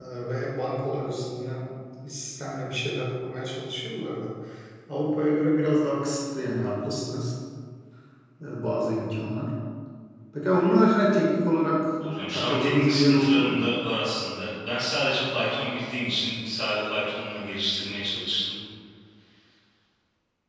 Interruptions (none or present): present